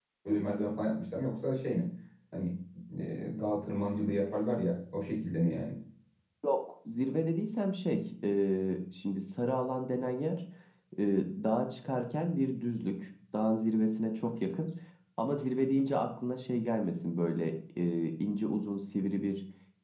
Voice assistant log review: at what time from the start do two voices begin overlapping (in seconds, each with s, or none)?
none